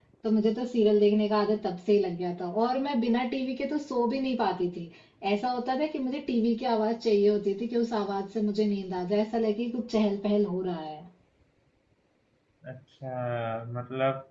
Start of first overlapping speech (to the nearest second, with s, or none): none